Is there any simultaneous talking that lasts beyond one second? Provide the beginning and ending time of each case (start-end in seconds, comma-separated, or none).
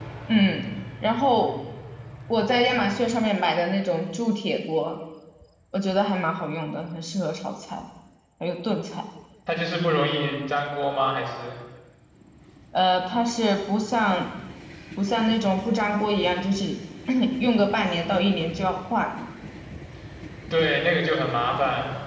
none